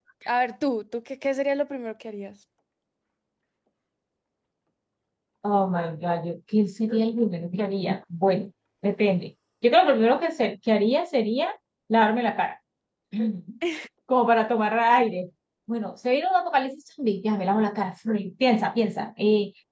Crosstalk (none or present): none